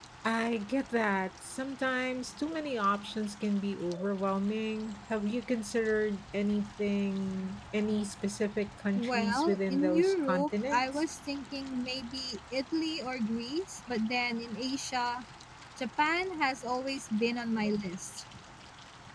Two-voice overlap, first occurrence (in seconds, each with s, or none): 9.0 s